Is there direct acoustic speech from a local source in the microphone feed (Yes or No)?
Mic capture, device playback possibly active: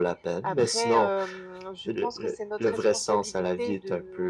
No